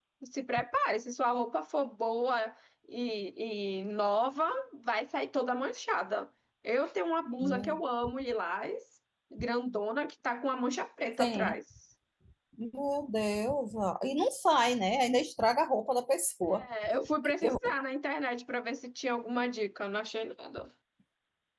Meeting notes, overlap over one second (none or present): none